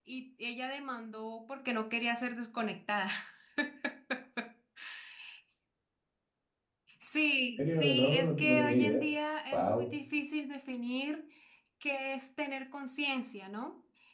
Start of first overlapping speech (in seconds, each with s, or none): 7.6 s